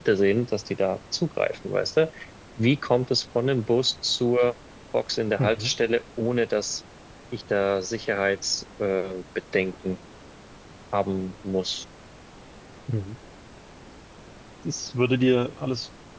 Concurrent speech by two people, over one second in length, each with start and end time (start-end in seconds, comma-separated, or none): none